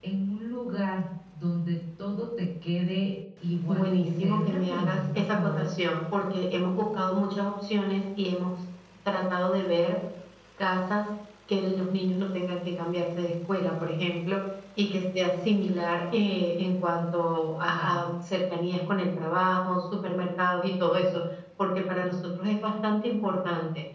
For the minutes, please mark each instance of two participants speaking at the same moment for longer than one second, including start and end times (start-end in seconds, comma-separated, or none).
3.7-5.7